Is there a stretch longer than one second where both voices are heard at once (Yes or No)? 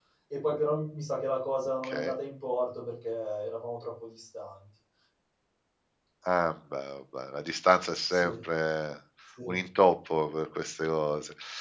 No